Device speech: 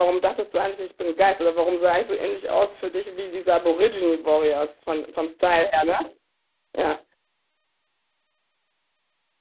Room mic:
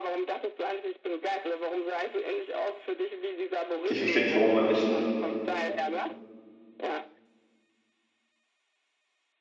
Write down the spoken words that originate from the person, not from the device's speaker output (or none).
Ich verstehe nicht, warum man nicht